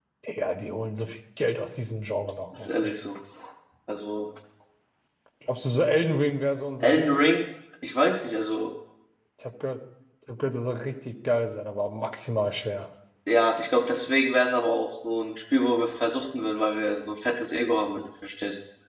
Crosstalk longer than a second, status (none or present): none